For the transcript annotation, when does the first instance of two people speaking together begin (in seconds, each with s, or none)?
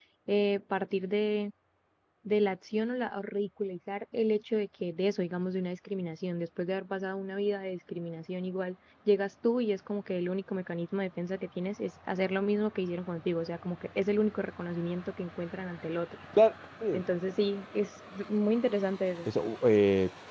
none